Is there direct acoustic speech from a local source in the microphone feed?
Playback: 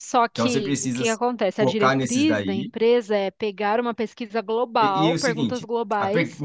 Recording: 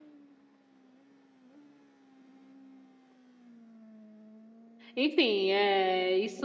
Yes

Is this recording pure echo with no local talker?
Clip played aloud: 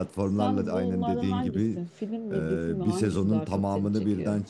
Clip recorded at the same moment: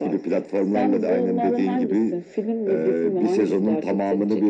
Yes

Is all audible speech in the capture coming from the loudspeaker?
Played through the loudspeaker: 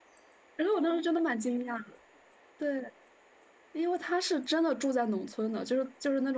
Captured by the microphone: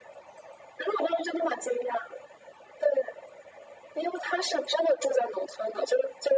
Yes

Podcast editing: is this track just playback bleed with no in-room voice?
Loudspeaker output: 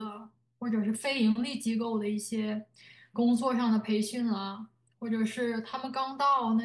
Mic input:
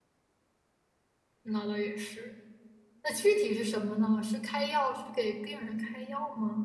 No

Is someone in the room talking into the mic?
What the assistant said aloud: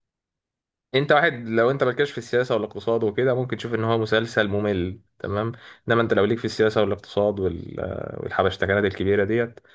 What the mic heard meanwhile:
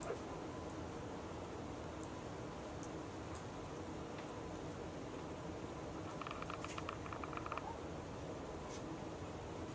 No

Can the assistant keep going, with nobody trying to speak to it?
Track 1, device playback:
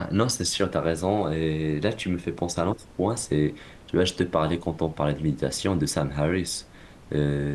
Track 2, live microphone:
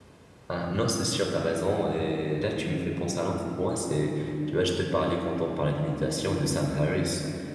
Yes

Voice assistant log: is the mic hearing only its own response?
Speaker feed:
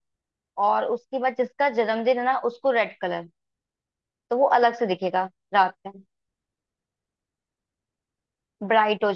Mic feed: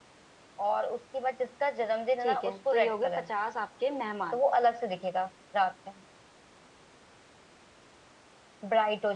No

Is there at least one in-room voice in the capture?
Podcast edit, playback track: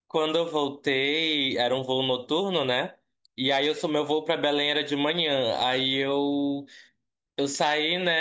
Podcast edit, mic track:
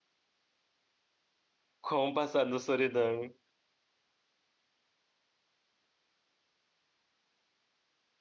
Yes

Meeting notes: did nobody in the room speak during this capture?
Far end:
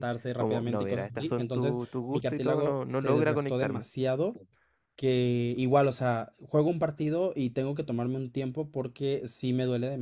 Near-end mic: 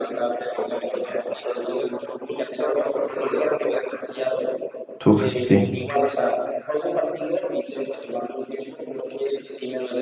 No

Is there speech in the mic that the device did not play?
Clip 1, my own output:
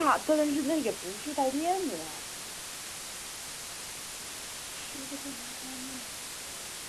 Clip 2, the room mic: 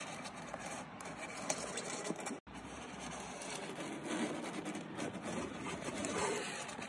No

